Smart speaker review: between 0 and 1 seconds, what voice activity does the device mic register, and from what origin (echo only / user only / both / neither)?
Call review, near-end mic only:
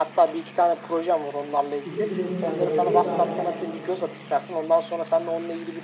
echo only